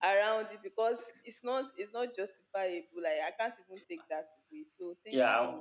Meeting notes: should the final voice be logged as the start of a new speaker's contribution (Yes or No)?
Yes